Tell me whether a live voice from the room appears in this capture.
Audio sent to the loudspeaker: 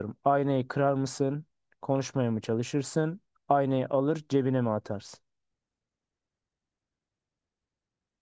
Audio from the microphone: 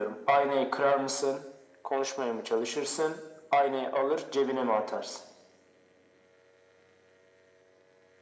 No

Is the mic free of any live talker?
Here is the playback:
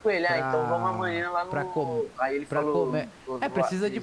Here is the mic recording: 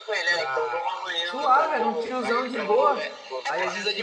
No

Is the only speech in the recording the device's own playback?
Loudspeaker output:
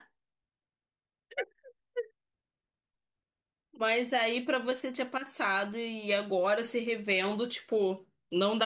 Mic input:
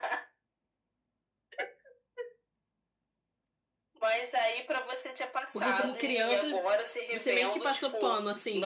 No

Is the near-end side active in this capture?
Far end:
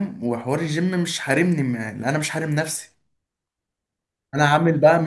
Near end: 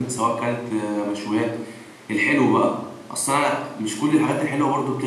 Yes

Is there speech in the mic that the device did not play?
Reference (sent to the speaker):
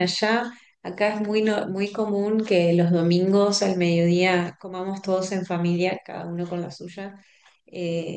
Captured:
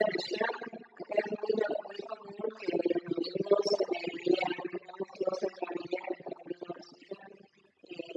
No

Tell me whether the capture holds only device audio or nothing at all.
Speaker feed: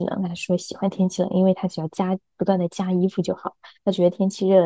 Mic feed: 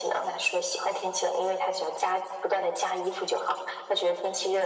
Yes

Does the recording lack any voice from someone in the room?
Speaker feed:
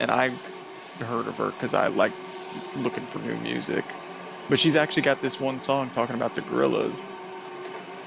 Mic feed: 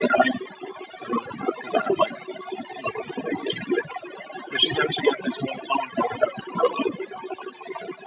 Yes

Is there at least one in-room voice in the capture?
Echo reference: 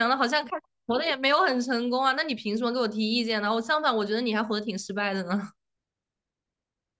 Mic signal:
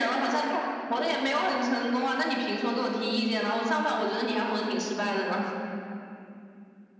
No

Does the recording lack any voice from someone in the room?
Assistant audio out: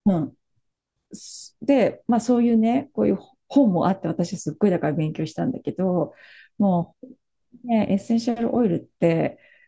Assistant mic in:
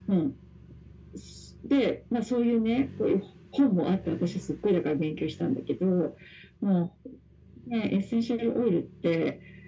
Yes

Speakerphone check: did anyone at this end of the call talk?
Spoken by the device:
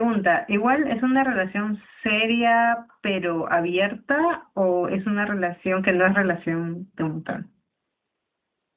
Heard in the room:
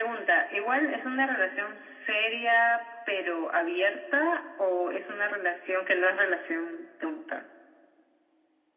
No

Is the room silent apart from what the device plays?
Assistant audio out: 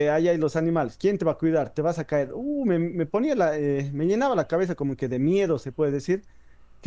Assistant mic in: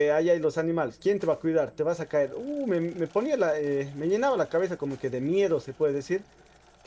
Yes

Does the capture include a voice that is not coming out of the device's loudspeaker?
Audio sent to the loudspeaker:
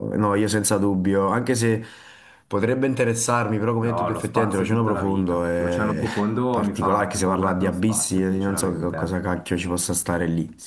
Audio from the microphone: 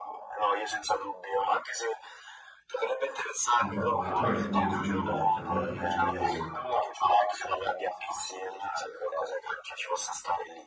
Yes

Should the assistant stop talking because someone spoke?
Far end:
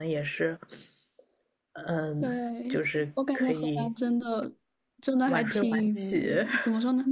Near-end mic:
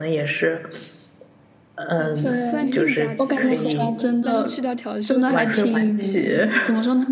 Yes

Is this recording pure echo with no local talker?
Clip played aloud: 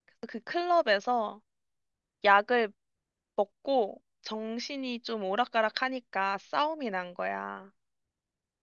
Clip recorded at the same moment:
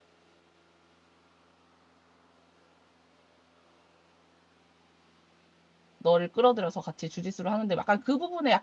No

